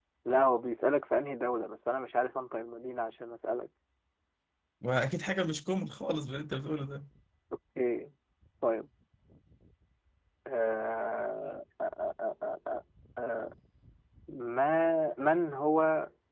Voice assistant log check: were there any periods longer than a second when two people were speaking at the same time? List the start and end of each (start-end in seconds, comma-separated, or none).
none